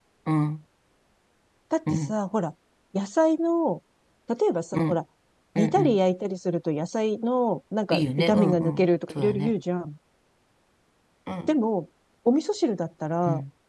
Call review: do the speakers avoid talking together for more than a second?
No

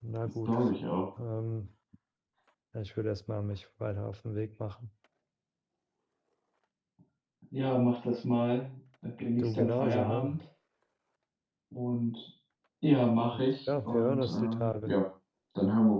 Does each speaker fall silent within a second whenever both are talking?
No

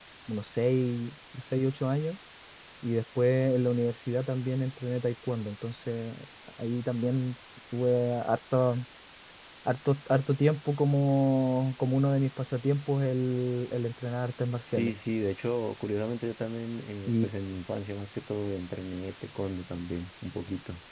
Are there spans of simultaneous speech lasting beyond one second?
No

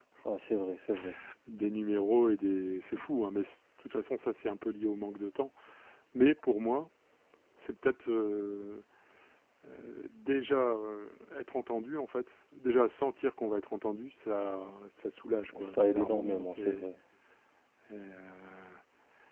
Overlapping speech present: Yes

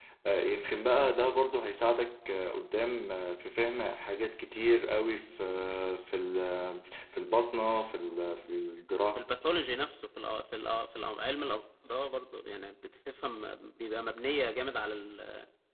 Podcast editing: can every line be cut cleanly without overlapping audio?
Yes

